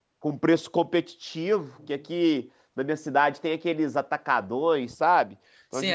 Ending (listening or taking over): taking over